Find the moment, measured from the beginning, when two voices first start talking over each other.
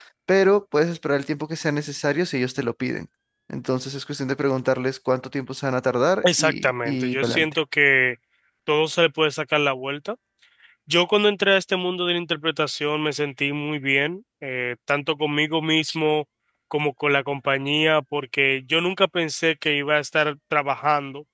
6.2 s

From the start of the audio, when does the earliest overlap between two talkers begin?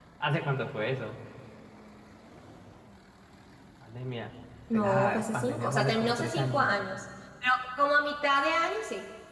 4.7 s

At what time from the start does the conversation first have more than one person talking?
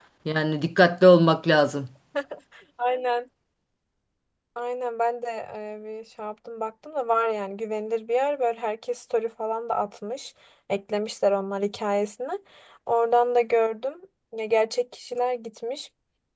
none

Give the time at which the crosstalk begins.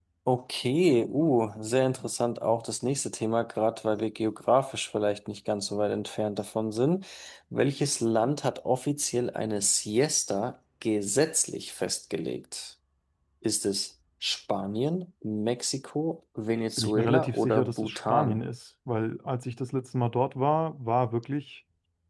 16.8 s

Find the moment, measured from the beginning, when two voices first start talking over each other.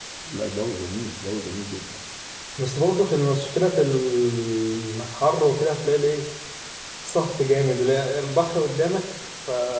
none

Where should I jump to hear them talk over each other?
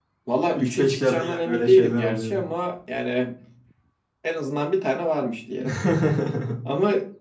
0.5 s

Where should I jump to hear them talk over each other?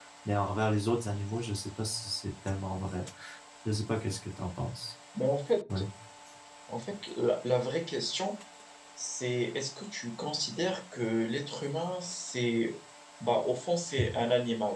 none

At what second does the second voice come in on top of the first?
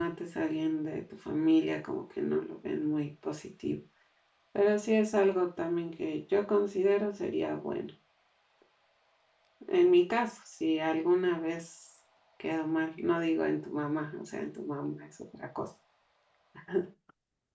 none

